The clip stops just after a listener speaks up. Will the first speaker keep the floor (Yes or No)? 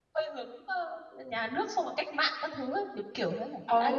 No